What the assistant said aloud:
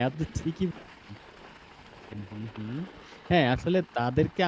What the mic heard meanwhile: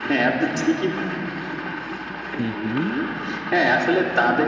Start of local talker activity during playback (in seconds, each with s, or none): 2.4 s